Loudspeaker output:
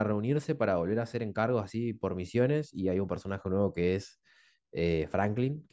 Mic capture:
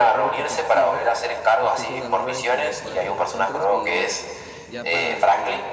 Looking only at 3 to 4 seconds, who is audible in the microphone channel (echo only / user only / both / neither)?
both